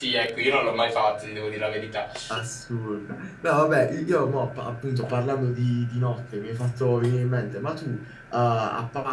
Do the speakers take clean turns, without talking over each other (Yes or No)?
Yes